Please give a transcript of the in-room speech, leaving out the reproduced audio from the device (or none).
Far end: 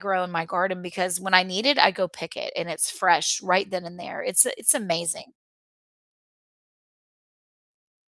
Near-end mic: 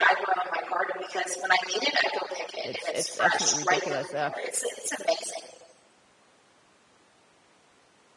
it's it's absolutely ridiculous, uh,